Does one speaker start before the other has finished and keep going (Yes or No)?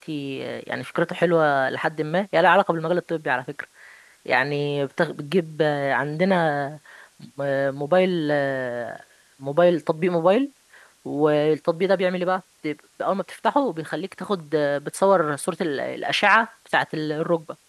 No